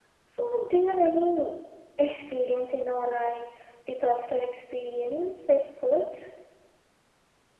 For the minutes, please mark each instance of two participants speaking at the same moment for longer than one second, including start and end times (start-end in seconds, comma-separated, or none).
none